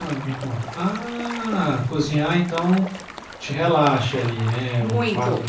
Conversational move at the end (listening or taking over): listening